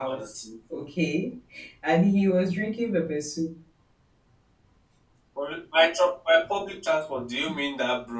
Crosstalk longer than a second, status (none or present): none